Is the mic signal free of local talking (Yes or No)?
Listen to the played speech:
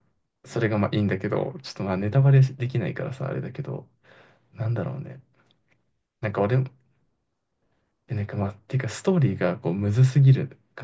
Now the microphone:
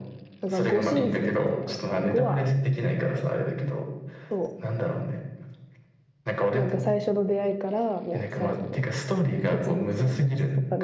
No